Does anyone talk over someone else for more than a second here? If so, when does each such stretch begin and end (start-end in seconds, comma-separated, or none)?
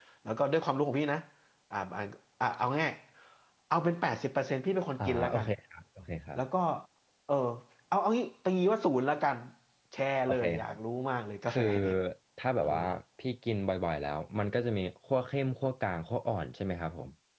none